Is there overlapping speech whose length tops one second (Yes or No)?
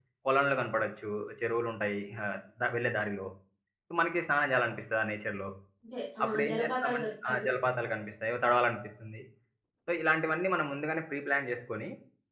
Yes